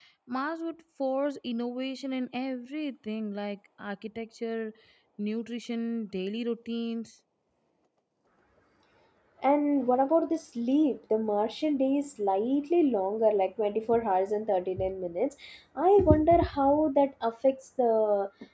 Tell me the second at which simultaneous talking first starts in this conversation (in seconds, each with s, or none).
none